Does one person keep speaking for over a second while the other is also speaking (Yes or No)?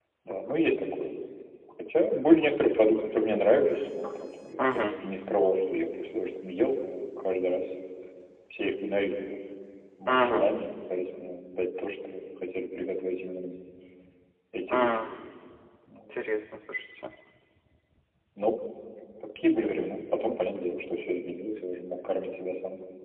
No